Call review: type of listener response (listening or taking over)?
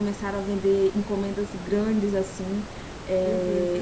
listening